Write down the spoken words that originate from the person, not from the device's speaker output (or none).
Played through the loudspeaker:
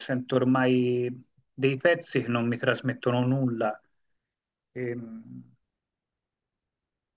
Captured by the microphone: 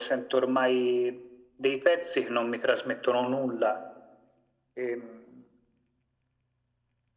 none